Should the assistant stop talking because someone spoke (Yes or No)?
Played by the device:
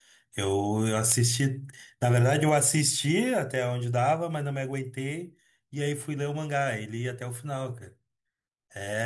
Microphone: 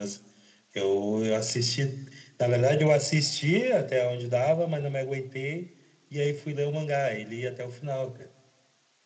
No